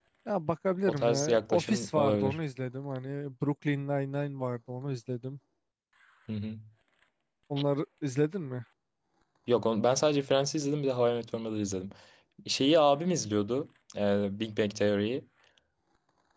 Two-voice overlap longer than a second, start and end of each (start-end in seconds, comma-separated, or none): 0.9-2.4